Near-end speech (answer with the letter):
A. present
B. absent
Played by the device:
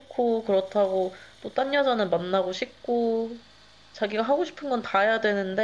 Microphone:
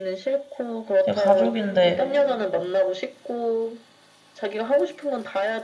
A